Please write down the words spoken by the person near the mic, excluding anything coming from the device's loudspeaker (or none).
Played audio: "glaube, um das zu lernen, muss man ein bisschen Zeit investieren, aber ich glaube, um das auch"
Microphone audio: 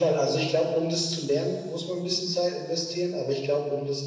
none